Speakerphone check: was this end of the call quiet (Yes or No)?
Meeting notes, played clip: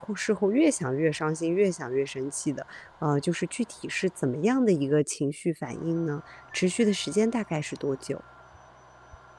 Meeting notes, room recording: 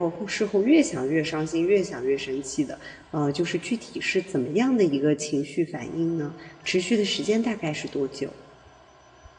Yes